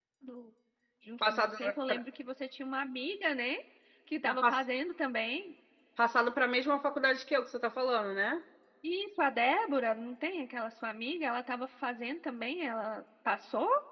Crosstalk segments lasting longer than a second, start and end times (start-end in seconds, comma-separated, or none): none